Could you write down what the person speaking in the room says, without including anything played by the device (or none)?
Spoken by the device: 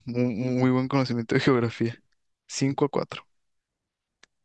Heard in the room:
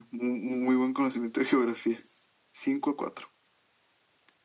none